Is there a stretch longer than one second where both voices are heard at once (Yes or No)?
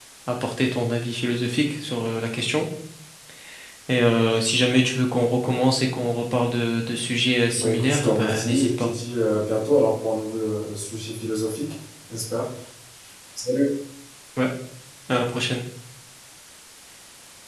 Yes